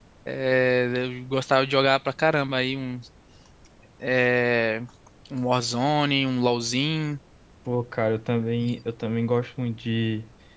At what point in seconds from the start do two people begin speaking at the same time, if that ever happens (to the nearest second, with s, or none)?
none